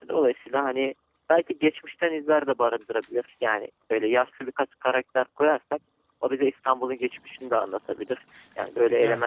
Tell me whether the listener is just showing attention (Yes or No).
Yes